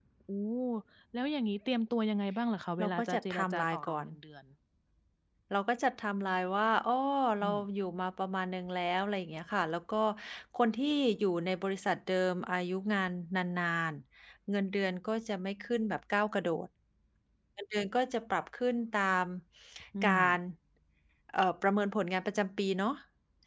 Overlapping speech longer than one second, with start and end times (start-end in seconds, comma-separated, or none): 2.8-4.0